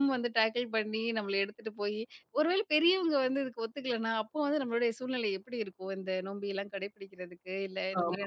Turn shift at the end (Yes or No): Yes